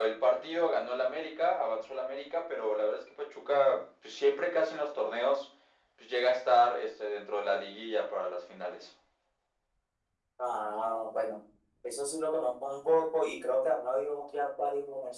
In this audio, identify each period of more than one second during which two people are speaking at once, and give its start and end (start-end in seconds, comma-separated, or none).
none